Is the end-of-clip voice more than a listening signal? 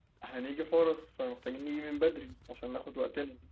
No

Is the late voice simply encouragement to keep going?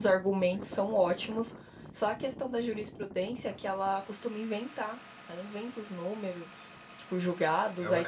No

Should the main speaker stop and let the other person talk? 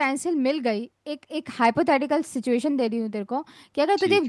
No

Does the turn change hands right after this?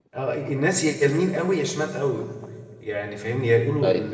No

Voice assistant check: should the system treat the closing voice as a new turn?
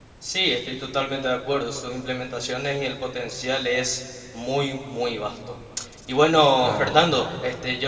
No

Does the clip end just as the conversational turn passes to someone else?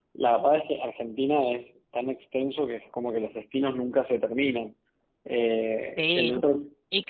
Yes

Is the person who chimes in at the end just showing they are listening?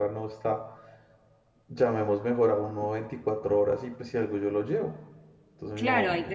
No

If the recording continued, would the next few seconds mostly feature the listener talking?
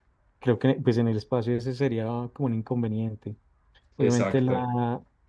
No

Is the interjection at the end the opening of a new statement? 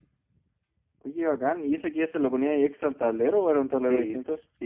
Yes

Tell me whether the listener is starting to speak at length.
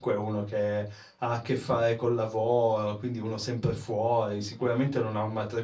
No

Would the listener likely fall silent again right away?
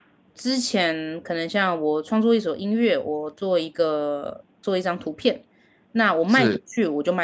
Yes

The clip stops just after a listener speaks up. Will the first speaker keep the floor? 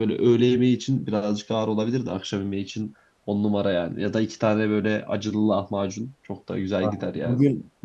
No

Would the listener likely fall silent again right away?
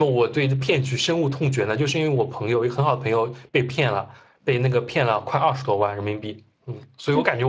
Yes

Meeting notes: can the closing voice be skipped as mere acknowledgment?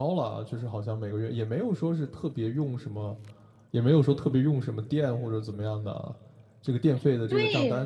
Yes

